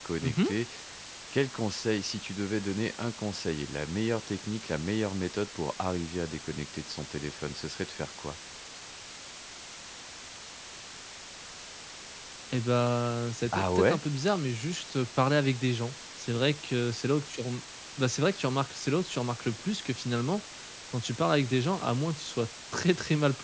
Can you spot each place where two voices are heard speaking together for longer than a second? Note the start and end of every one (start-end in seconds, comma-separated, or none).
none